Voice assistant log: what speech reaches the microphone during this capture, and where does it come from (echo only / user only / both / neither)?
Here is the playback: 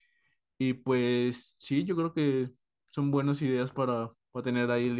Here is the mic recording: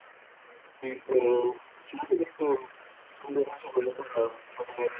echo only